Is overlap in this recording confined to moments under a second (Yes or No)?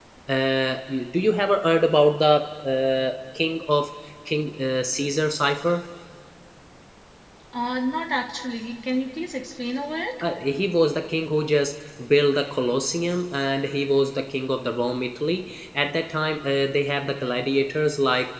Yes